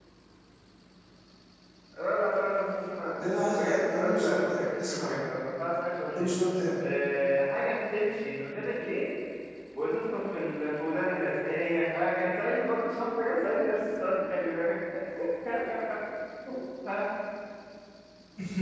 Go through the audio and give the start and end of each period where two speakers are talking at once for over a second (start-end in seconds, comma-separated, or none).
3.5-5.2